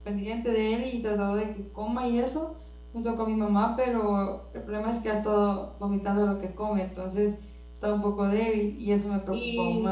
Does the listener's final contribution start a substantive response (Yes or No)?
Yes